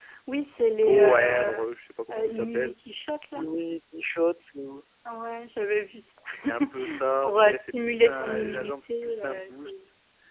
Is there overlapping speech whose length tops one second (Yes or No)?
Yes